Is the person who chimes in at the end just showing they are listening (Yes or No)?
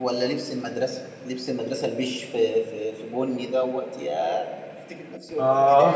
No